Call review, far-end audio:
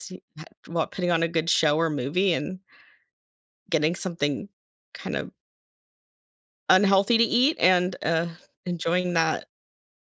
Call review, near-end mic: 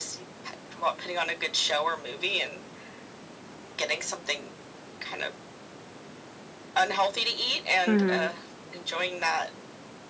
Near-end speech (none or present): present